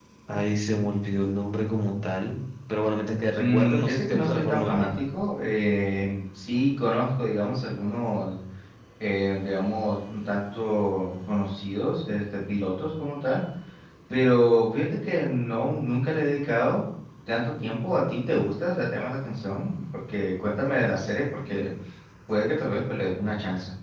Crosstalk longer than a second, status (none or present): present